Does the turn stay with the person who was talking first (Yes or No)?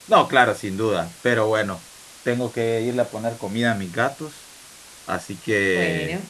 Yes